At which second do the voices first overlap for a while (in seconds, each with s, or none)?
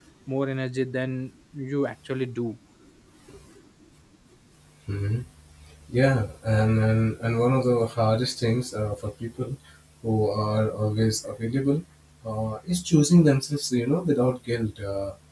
none